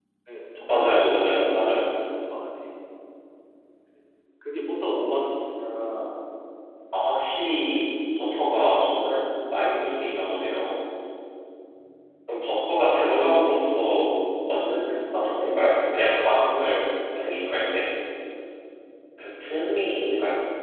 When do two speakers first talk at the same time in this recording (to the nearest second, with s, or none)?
1 s